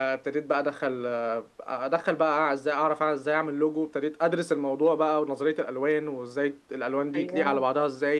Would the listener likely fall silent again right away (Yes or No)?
Yes